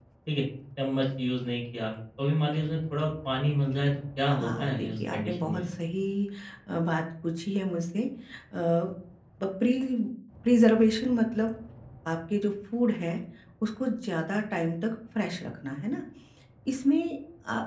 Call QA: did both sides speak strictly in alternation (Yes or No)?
No